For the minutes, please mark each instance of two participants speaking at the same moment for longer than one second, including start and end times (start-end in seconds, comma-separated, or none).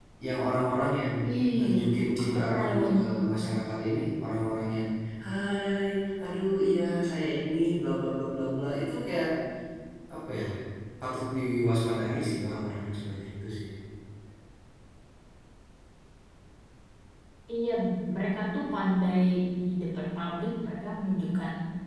2.2-3.4